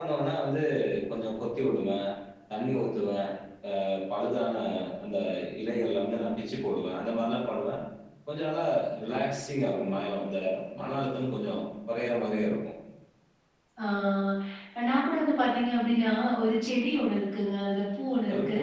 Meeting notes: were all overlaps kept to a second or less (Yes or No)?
Yes